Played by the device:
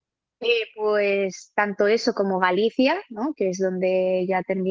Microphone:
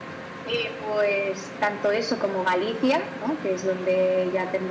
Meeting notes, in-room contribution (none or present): none